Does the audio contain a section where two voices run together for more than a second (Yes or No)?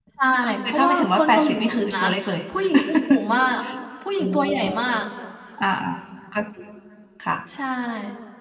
Yes